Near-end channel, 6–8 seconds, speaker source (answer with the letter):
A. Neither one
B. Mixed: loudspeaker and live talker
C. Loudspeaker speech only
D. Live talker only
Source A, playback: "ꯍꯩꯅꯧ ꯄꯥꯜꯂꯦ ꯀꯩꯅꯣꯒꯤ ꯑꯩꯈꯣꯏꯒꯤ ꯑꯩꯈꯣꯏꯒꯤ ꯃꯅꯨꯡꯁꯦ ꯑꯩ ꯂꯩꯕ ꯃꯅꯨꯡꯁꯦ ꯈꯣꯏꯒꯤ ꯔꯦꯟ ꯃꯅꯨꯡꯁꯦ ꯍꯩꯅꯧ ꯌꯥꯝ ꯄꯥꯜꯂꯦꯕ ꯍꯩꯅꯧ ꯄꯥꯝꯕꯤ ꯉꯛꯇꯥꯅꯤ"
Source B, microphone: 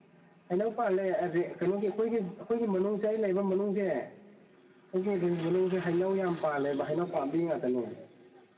C